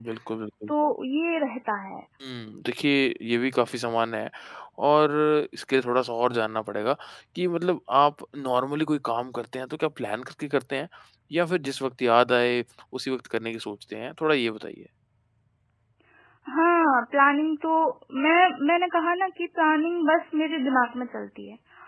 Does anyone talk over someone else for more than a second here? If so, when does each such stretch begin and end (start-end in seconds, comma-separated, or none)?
none